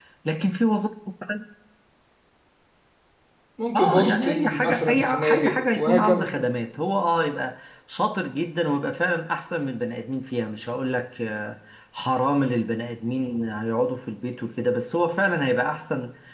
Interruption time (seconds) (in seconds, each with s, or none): 3.7 s